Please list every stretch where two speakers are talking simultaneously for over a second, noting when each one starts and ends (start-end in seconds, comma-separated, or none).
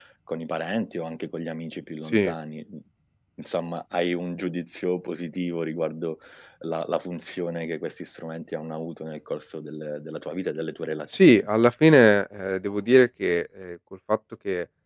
none